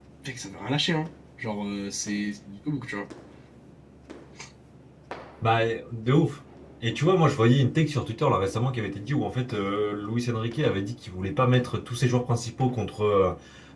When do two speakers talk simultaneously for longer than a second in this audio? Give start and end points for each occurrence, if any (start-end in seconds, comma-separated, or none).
none